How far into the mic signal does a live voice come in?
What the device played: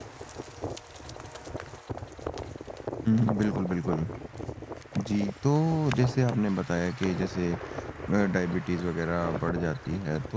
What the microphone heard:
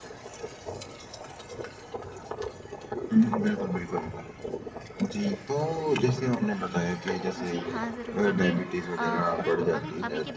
7.4 s

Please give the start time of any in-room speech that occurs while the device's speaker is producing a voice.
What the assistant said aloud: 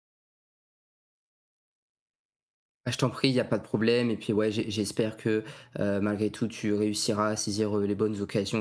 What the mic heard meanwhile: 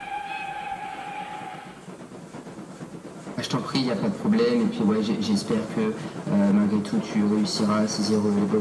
none

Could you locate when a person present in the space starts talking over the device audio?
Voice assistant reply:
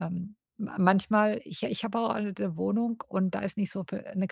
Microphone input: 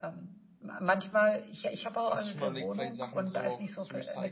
2.1 s

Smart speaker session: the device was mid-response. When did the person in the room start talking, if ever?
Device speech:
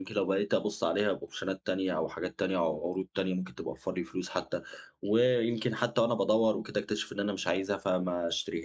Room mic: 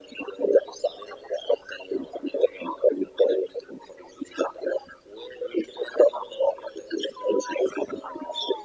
none

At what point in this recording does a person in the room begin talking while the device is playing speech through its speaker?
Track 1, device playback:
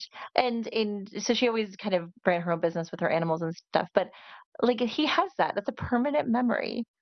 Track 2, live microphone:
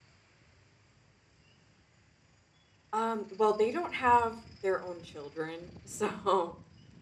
2.9 s

